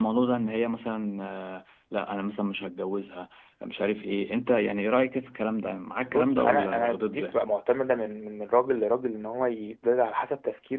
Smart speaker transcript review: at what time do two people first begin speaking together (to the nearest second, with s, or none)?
6 s